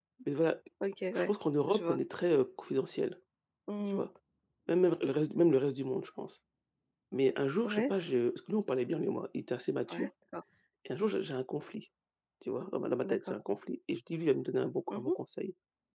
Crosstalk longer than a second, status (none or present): none